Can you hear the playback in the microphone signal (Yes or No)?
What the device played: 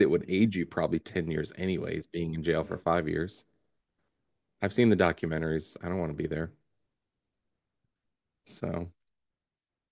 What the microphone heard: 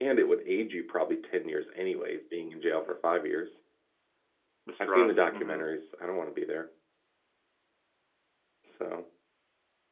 Yes